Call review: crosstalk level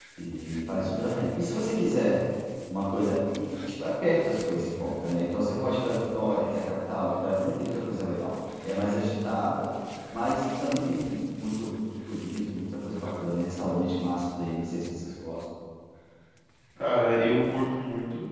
none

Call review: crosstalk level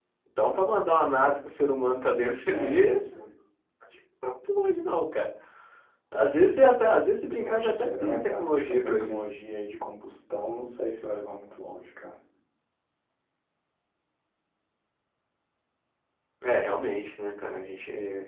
present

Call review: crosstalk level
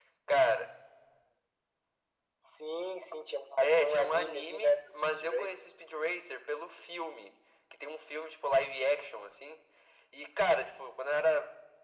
present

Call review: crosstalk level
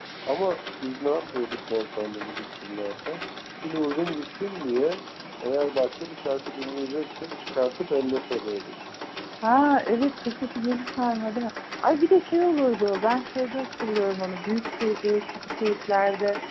none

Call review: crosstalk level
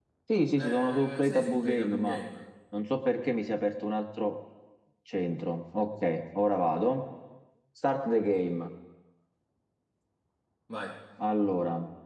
present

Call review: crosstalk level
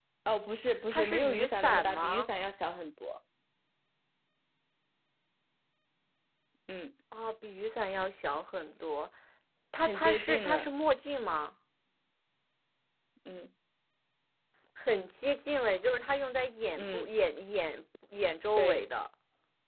present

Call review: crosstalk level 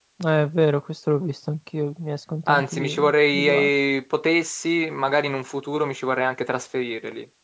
present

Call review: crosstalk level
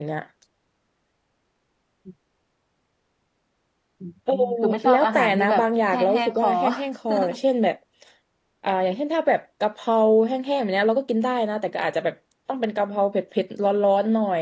present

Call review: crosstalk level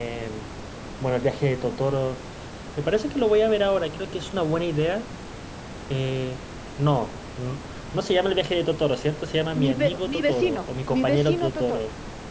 present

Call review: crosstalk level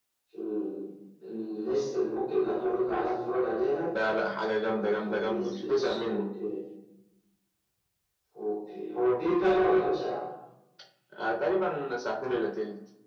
present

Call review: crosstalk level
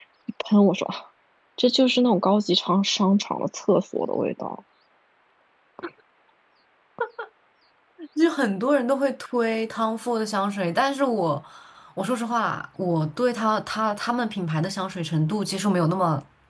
none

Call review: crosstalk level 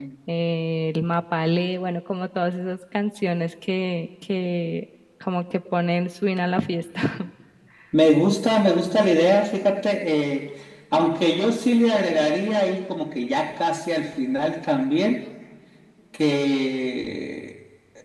none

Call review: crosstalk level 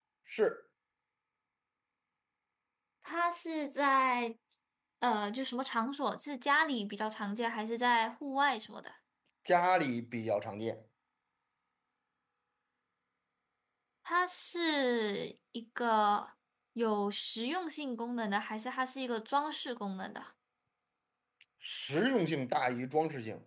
none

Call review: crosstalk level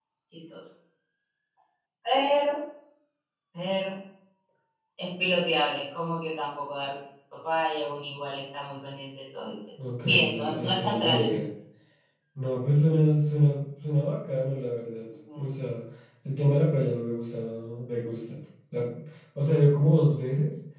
present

